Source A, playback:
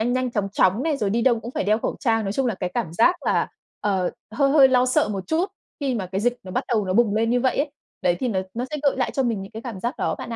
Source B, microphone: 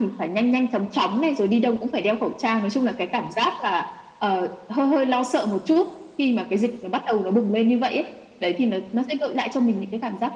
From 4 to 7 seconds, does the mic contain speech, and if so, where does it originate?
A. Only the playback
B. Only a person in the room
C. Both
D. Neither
A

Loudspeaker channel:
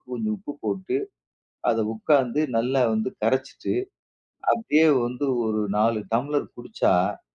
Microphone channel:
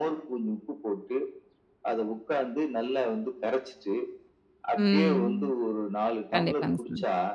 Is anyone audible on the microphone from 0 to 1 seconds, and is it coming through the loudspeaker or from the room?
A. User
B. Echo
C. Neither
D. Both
B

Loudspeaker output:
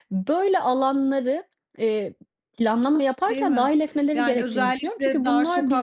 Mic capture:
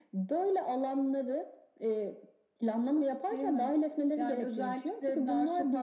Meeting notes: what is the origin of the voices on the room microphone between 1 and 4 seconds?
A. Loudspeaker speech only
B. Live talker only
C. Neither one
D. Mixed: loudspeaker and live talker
A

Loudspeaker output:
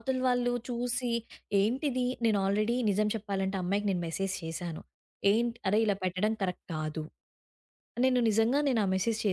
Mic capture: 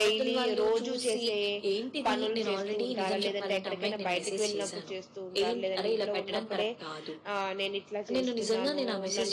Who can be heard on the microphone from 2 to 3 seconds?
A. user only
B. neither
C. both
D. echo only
C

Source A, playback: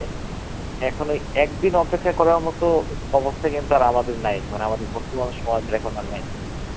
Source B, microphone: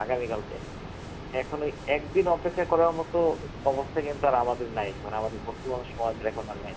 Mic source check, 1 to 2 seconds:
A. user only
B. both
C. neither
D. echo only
D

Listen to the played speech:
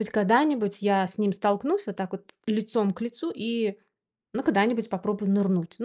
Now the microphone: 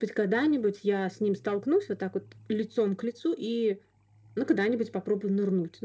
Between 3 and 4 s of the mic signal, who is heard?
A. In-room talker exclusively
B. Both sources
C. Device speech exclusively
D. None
C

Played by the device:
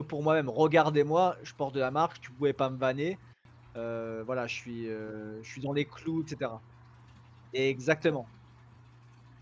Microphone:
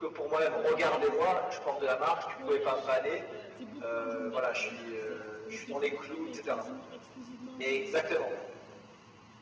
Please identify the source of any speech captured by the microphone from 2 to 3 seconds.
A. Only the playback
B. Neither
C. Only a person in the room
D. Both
D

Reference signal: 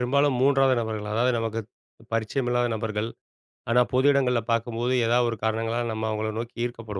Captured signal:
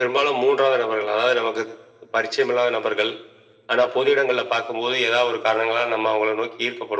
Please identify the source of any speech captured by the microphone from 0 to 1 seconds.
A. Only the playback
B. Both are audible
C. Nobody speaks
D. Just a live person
A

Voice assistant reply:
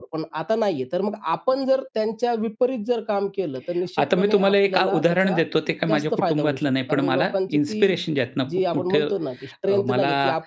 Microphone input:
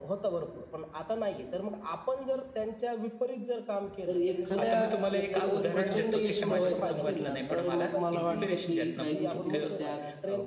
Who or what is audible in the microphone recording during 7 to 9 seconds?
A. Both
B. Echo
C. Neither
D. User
A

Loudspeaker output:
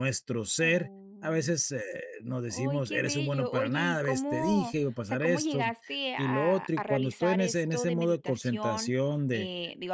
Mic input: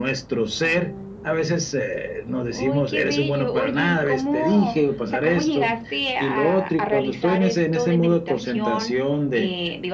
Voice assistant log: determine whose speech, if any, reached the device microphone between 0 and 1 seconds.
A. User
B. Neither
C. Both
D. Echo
D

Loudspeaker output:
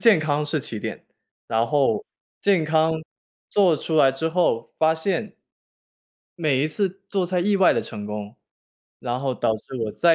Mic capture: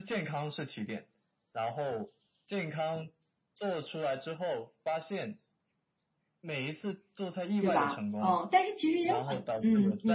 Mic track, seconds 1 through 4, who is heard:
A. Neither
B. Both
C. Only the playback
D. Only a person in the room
C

